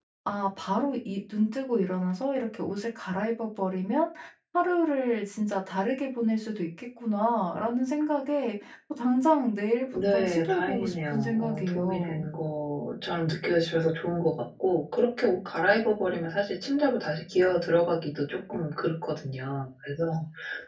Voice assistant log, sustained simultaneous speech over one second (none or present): present